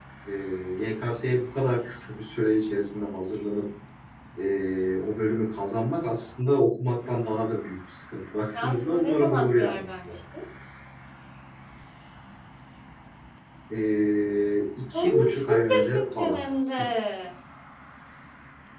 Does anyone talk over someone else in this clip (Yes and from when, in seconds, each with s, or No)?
Yes, from 8.5 s